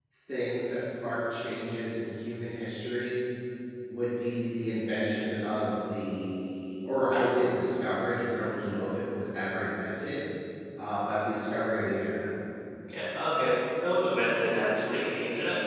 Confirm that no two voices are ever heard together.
Yes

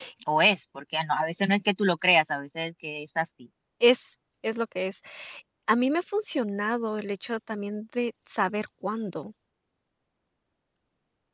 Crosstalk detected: No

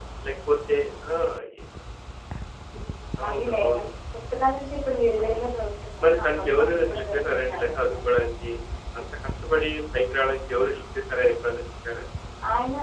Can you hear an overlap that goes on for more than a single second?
Yes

